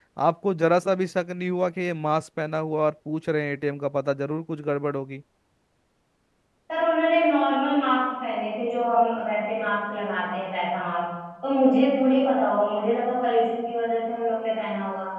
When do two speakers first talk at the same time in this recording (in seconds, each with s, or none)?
none